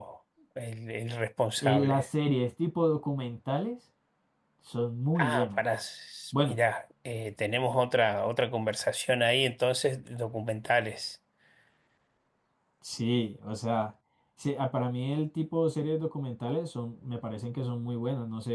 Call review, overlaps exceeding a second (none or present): none